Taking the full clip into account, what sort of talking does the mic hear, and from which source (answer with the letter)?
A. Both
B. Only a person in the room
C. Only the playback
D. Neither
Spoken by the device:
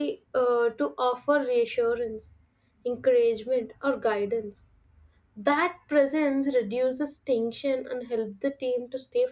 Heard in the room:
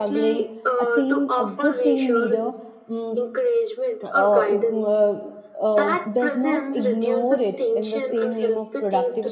A